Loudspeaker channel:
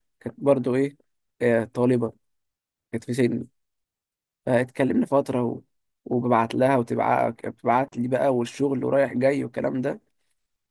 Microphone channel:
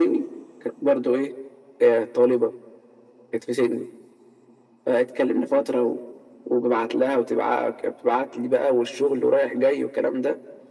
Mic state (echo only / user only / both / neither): echo only